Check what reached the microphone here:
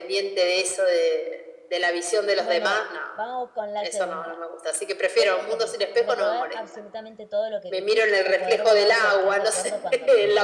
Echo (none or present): present